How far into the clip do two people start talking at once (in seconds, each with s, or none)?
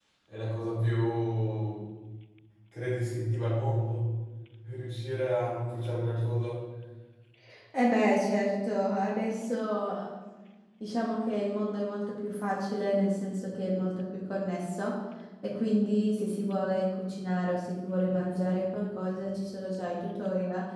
none